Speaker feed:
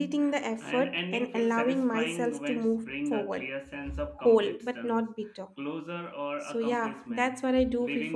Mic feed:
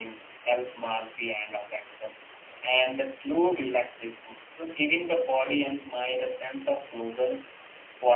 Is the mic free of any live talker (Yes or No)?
No